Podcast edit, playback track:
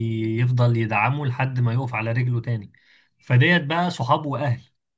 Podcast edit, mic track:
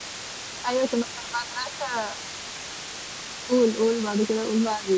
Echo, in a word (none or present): none